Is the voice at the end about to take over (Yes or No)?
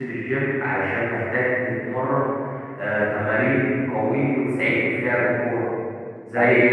No